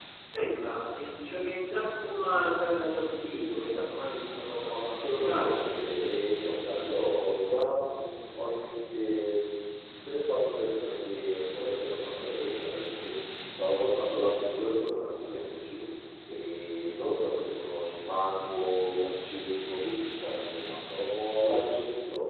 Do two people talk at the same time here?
Yes, from 4.8 s

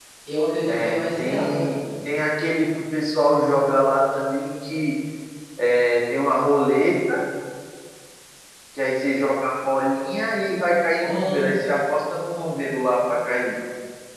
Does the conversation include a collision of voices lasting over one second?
Yes, from 0.7 s

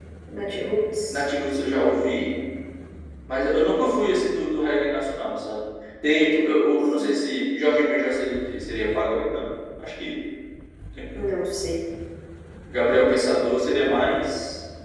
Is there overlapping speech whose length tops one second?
No

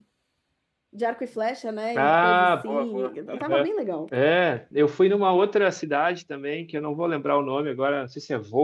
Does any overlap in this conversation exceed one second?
Yes, from 2.0 s

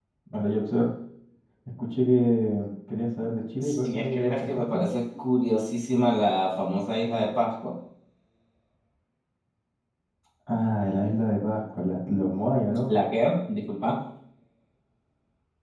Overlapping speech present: Yes, from 3.6 s

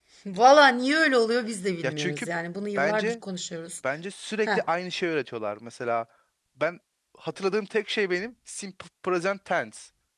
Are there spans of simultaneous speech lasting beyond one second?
No

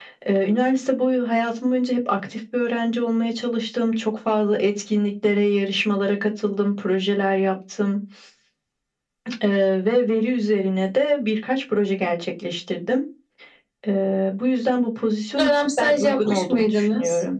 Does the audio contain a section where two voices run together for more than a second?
Yes, from 15.4 s

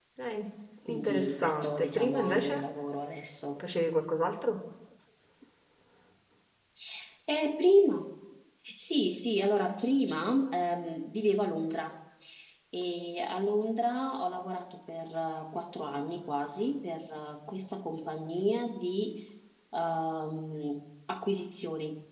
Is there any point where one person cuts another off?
Yes, from 0.9 s

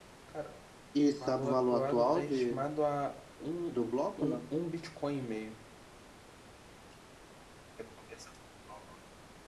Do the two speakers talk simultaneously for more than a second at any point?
Yes, from 1.3 s

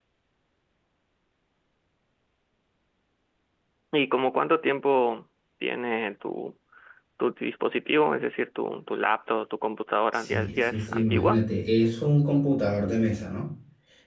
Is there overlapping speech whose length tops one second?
Yes, from 10.1 s

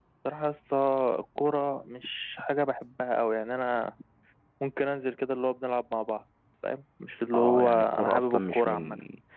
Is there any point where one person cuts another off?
Yes, from 7.3 s

